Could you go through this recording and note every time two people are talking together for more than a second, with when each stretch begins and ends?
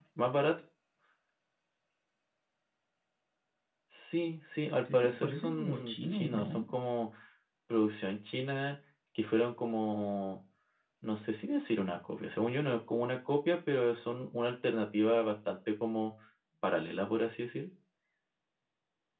4.9-6.6

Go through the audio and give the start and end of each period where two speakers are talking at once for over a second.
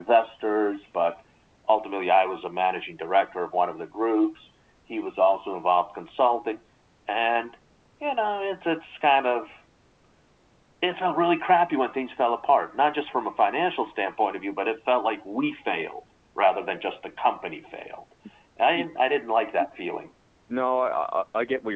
none

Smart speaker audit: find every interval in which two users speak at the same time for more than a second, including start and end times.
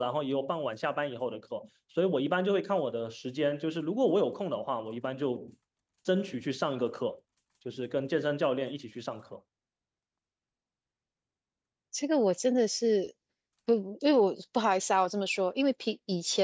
none

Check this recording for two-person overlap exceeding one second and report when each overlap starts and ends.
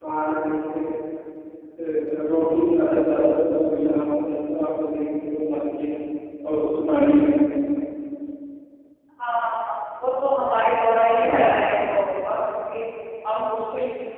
none

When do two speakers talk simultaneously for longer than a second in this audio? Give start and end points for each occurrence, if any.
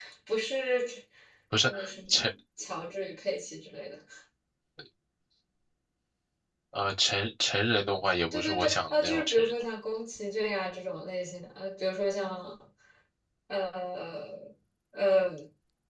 8.3-9.5

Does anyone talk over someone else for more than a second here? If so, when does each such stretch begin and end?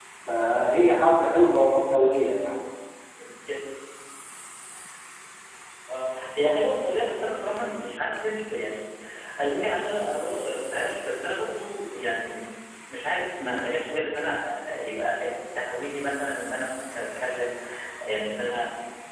none

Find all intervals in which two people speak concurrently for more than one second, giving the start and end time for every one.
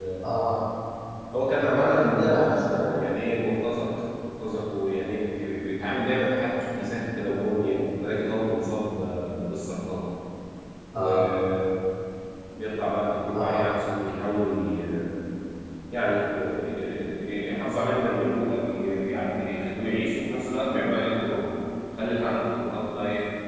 1.6-3.0

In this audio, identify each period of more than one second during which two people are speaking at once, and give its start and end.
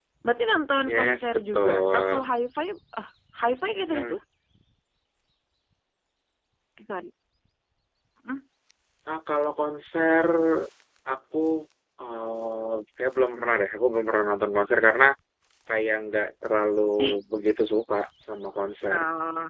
0.8-2.2

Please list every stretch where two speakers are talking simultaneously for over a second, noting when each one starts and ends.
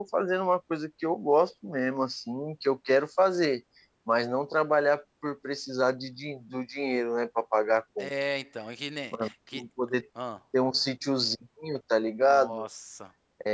none

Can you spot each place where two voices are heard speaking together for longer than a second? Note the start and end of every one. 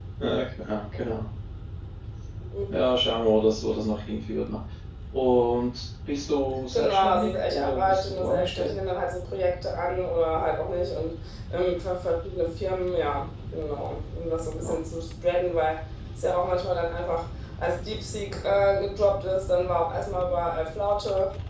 6.7-8.8

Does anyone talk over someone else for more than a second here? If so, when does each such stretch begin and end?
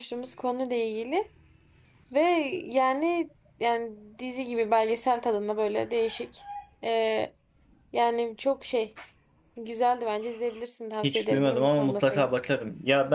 11.0-12.3

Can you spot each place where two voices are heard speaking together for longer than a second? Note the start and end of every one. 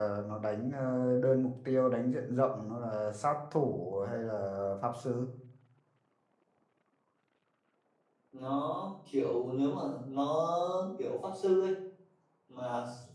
none

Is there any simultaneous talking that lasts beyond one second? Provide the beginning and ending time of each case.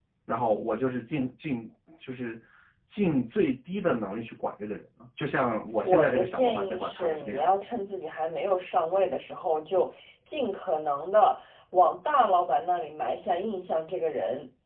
5.8-7.5

